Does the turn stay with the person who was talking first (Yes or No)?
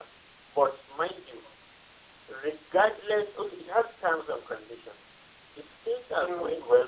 Yes